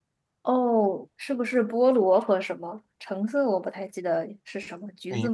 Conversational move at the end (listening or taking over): taking over